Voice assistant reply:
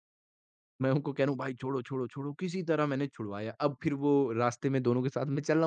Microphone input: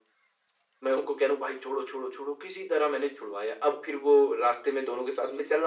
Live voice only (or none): none